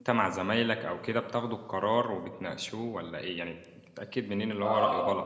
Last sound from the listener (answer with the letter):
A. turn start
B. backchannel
A